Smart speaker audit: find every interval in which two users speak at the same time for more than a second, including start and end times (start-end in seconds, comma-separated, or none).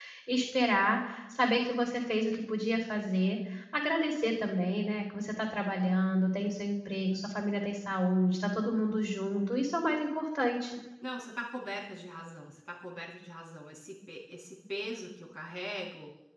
none